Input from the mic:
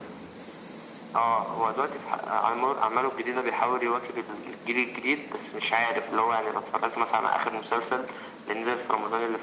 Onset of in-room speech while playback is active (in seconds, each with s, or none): none